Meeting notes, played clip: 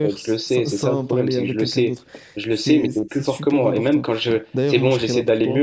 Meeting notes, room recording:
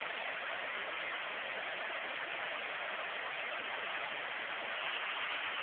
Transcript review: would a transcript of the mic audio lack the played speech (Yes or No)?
Yes